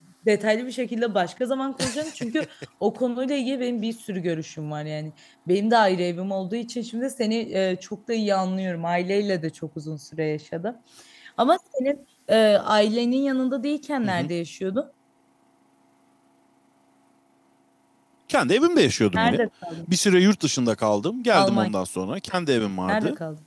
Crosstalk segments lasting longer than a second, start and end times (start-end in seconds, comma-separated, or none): none